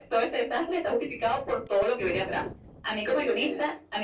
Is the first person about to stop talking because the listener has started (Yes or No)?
No